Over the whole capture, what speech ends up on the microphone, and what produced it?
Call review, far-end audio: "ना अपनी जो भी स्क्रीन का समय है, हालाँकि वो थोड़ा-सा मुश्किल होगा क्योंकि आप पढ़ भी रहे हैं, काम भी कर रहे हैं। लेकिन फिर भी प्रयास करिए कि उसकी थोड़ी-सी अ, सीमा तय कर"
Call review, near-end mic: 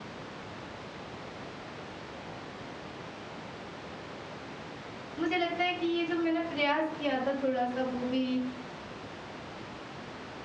user only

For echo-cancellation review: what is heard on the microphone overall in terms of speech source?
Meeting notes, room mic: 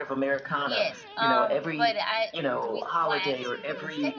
both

